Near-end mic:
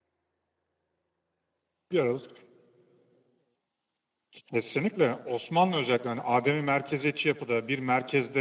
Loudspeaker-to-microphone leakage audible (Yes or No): No